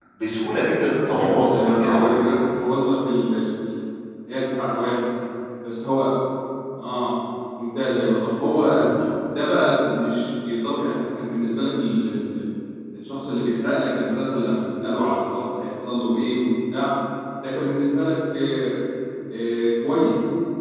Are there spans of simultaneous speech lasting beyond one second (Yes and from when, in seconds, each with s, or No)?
Yes, from 1.1 s